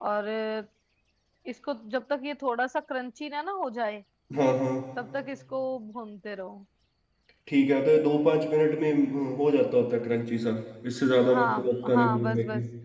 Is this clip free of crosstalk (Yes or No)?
No